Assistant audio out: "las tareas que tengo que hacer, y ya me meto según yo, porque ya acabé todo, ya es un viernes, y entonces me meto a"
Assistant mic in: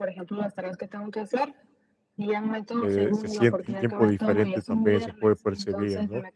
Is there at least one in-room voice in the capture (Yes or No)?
Yes